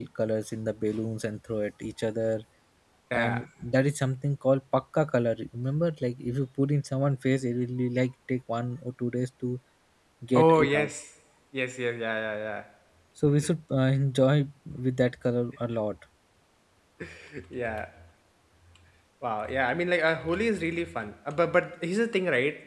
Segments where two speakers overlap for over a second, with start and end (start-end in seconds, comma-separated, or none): none